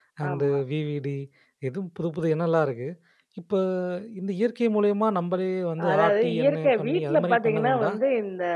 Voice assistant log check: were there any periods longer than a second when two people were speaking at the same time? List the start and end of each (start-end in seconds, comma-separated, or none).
5.9-7.9